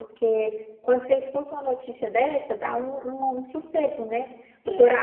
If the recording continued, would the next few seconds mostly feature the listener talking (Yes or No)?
No